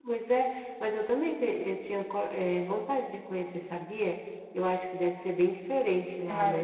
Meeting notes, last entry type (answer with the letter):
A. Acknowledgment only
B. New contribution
B